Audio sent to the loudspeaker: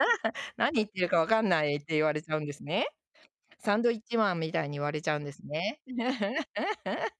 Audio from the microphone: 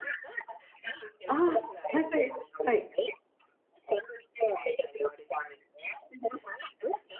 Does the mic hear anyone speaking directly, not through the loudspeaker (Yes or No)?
Yes